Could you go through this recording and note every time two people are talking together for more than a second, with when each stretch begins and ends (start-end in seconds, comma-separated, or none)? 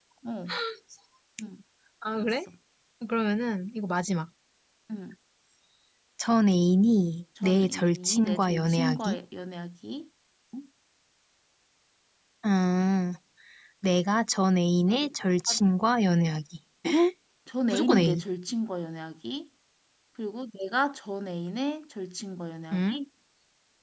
7.4-9.2